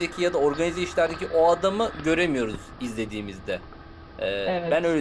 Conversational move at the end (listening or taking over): taking over